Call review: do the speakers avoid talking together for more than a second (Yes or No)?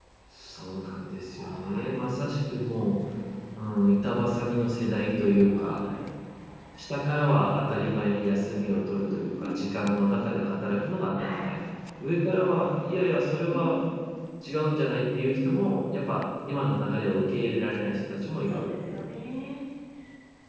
Yes